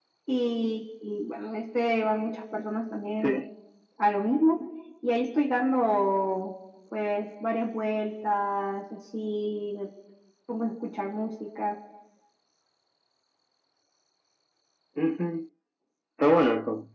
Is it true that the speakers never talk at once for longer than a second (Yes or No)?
Yes